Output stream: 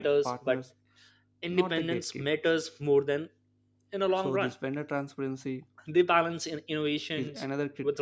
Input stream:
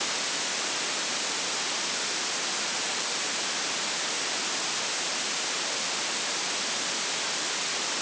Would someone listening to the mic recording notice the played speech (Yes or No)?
No